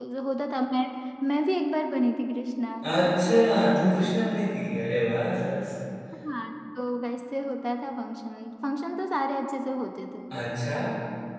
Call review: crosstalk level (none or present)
none